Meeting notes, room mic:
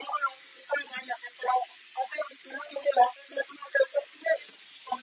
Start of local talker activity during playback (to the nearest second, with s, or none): none